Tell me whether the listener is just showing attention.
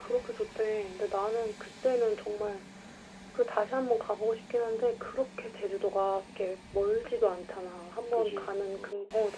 Yes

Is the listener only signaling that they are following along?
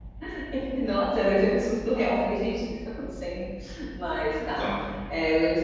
Yes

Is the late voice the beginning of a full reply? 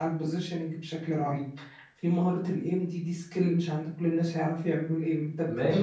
Yes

